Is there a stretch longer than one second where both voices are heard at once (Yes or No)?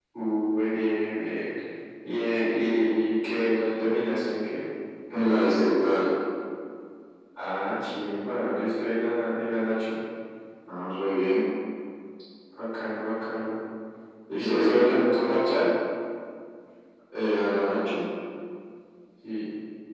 Yes